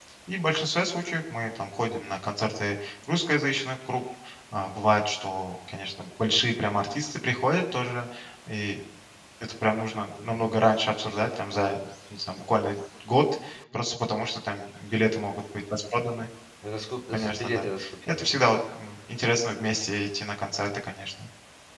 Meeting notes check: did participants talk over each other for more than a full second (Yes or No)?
Yes